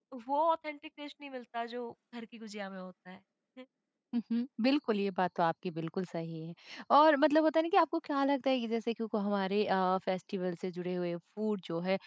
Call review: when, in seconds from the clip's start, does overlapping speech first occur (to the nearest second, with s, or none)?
none